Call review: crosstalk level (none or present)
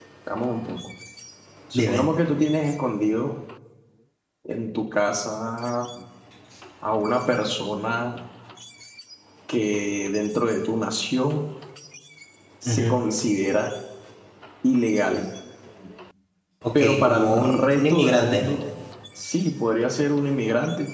present